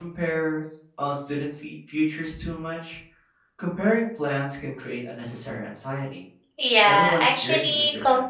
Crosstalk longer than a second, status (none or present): present